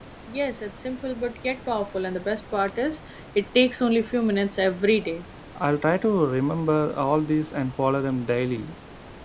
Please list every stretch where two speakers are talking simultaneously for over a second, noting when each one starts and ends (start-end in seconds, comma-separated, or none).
none